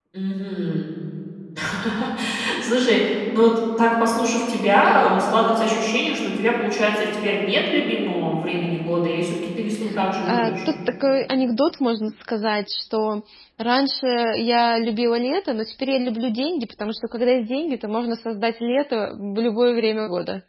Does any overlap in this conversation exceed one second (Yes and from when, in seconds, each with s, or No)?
No